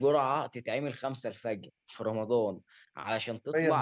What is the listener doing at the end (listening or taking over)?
listening